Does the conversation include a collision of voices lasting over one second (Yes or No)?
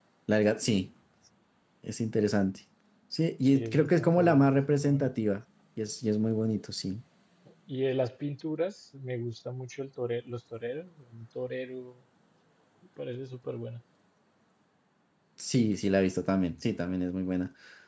Yes